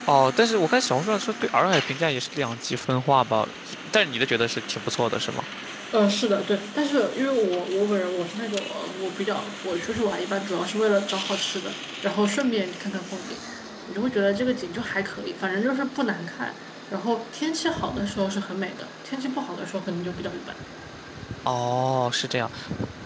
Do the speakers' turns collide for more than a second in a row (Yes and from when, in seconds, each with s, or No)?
No